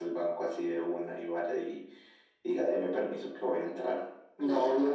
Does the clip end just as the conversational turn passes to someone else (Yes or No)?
Yes